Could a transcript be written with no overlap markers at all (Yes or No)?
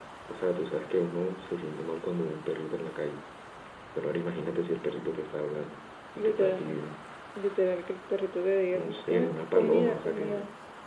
No